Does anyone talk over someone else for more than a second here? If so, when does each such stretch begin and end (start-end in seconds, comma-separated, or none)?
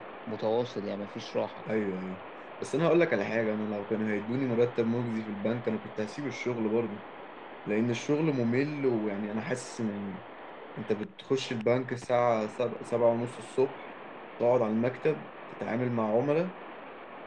none